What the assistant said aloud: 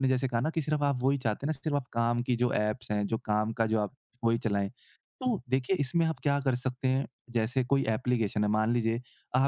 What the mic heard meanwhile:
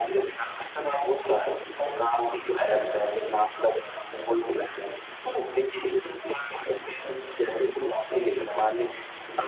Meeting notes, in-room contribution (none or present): none